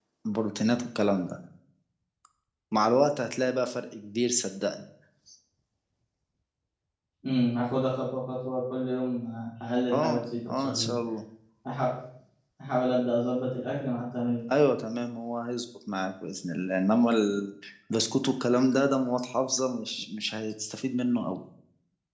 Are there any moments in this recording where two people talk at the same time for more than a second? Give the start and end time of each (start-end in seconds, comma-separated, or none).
none